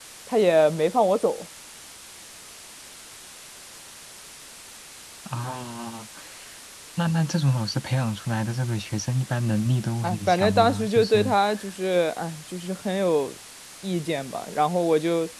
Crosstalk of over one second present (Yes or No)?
Yes